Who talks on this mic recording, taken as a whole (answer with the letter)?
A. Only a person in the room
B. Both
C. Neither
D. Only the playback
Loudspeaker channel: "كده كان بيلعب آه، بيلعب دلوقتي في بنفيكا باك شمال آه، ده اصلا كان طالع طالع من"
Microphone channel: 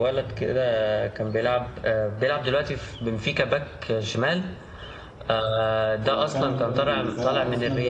B